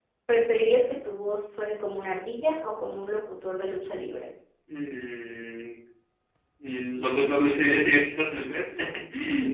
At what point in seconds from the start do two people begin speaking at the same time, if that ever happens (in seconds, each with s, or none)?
none